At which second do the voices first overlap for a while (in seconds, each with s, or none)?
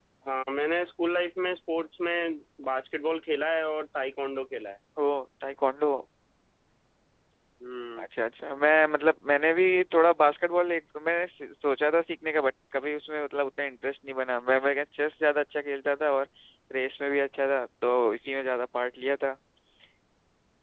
none